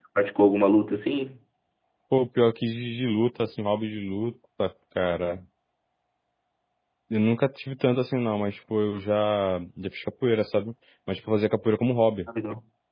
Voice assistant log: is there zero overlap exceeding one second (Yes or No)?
Yes